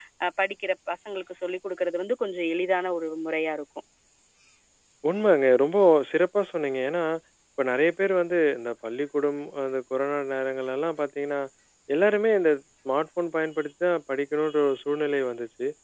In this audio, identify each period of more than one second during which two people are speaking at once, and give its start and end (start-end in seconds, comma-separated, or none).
none